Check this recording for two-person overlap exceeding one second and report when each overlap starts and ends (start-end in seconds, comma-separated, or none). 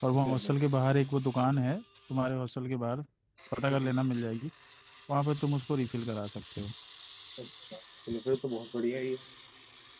none